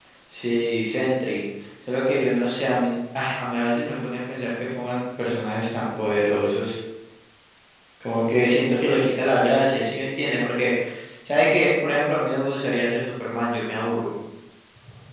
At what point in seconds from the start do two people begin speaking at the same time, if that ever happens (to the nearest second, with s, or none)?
none